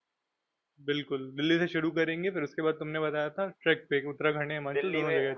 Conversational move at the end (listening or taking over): taking over